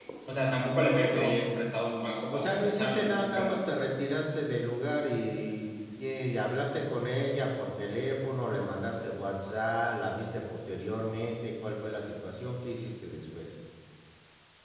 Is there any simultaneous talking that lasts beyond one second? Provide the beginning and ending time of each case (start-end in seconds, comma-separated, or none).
2.3-3.6